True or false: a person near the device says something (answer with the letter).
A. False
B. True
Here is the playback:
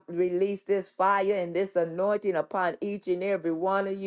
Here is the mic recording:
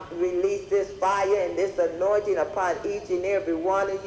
A